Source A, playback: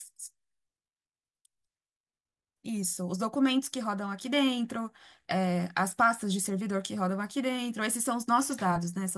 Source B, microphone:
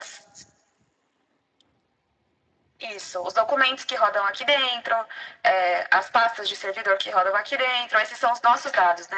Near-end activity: none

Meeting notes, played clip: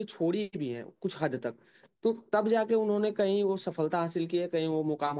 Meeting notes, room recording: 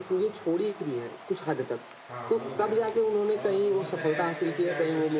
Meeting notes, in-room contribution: present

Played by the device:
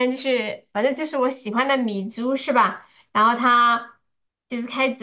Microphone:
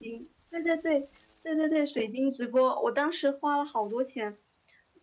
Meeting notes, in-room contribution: present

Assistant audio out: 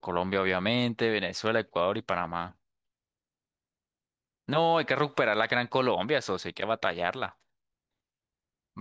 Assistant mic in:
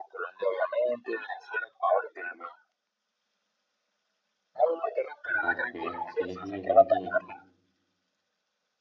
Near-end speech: present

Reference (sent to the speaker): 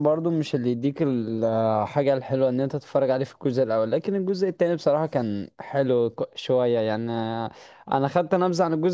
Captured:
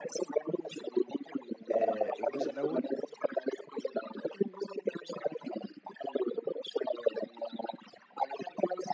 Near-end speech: present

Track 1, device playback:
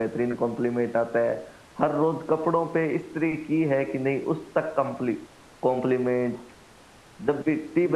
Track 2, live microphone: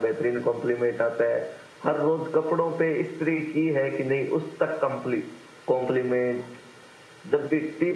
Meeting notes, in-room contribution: none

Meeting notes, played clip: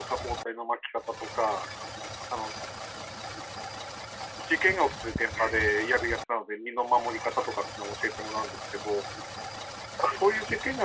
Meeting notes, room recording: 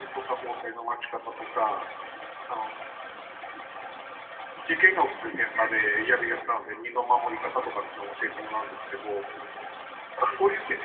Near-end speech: none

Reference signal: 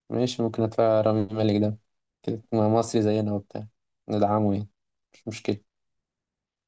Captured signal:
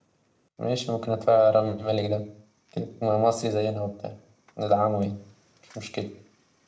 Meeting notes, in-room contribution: none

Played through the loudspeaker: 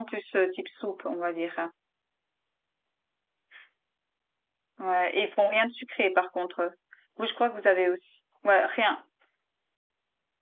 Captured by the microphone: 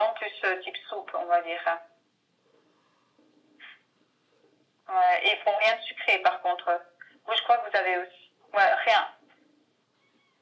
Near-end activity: none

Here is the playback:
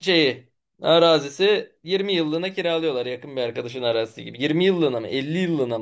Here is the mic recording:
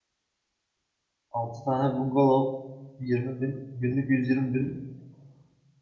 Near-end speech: present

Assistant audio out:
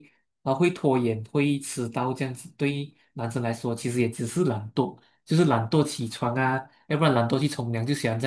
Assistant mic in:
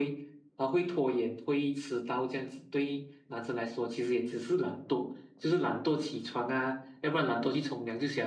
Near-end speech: none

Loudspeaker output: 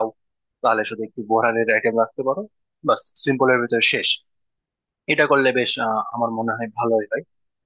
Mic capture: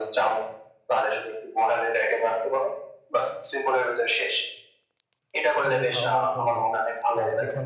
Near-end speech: present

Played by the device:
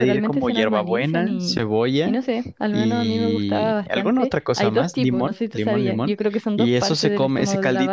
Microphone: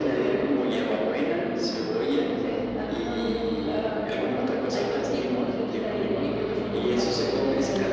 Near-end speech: none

